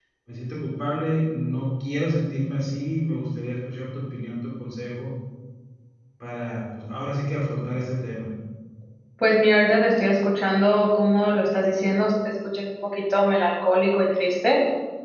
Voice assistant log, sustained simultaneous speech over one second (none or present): none